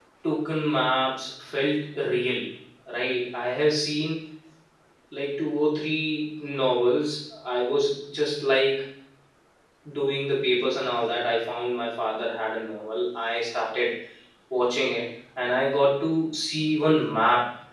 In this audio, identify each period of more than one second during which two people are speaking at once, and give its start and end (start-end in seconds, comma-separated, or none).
none